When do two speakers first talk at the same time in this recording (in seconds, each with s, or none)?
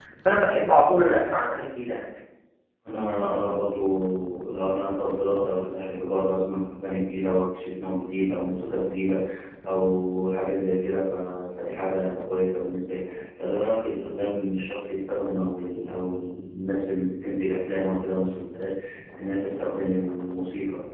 none